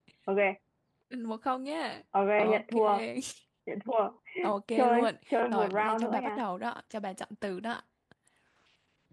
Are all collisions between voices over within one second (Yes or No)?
No